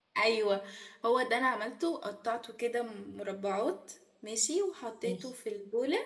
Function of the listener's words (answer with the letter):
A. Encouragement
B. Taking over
A